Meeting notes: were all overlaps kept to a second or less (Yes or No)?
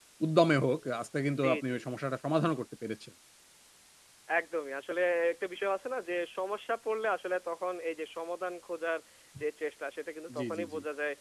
Yes